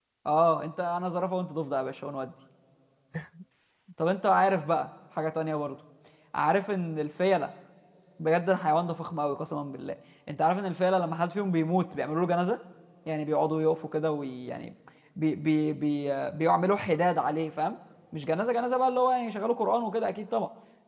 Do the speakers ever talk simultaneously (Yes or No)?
No